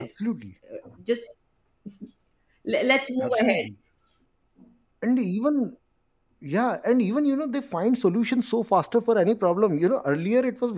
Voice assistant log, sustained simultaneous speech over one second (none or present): none